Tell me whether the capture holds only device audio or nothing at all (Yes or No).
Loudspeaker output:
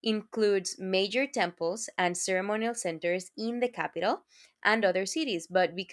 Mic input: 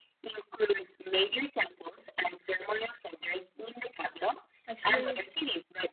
No